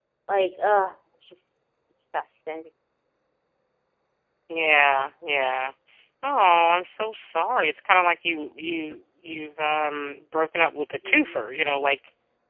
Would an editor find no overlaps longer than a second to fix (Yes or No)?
Yes